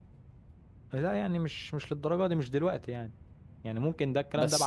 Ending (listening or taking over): taking over